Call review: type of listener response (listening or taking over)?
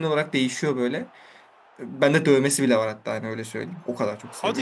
taking over